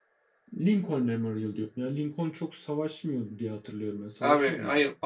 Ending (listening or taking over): taking over